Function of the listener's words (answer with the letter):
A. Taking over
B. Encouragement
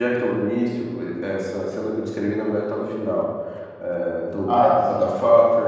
B